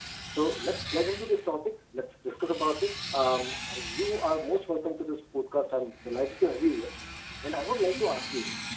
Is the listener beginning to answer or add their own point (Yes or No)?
No